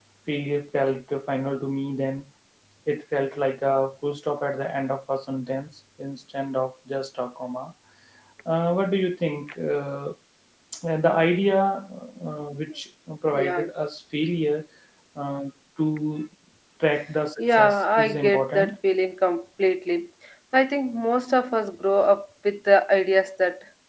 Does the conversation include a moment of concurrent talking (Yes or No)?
Yes